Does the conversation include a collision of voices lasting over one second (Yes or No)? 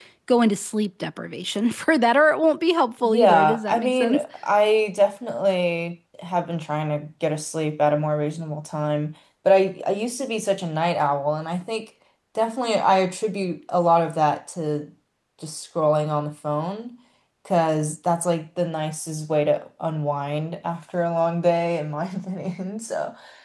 Yes